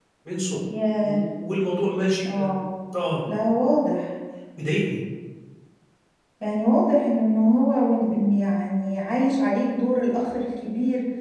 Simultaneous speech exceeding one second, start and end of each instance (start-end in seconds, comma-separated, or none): none